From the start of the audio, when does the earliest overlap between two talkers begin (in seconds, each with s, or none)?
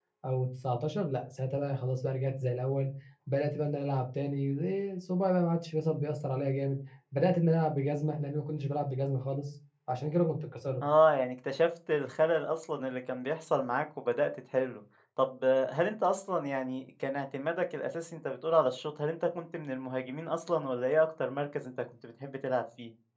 none